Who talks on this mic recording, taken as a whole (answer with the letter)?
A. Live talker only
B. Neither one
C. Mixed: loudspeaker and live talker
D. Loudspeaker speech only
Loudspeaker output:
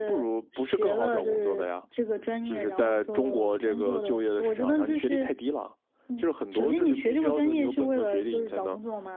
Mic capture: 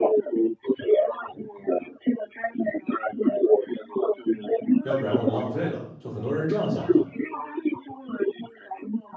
C